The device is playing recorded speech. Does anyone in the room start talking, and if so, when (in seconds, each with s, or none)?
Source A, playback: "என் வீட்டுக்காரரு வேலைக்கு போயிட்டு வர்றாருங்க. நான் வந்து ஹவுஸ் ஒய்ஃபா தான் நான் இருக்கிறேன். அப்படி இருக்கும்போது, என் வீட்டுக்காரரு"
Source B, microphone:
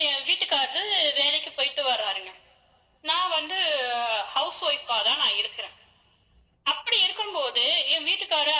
none